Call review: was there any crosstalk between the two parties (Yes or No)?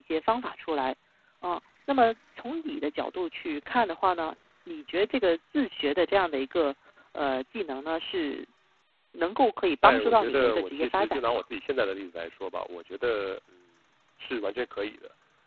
Yes